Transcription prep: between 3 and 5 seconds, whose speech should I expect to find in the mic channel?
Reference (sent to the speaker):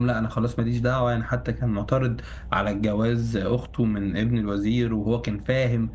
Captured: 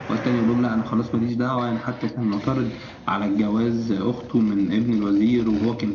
echo only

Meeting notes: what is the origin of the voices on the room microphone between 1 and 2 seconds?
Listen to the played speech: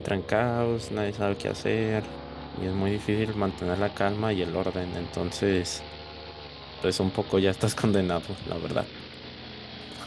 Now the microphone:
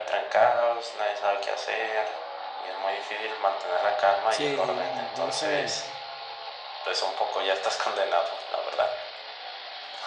echo only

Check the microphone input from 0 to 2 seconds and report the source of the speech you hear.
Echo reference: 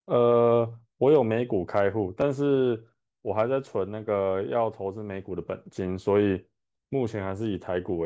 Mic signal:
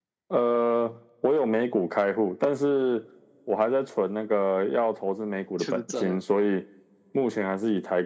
echo only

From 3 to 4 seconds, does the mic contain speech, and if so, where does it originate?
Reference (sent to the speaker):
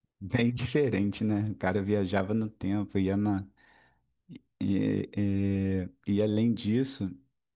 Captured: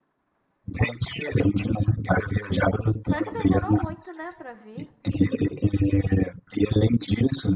both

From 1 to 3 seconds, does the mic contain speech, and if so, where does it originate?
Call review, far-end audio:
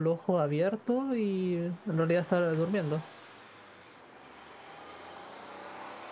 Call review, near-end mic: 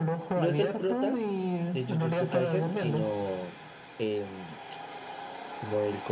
both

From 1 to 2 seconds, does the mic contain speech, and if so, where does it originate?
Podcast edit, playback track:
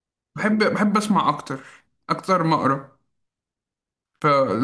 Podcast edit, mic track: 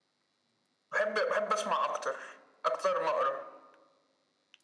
echo only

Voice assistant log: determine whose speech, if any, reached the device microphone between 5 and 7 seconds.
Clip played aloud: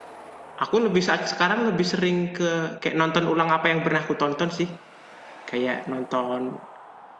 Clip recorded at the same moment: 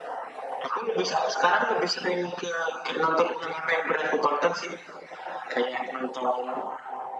echo only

